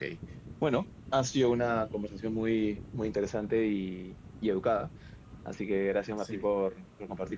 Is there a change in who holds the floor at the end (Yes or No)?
No